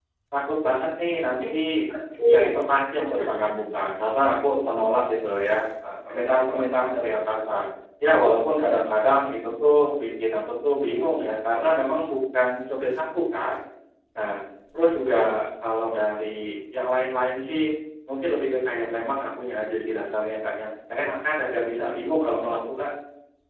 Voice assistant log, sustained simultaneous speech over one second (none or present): none